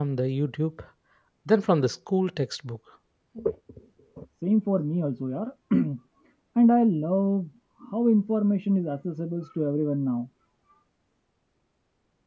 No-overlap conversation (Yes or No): Yes